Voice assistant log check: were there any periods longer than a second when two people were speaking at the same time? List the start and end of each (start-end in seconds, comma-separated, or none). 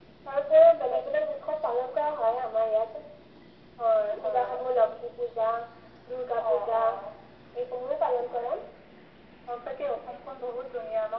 none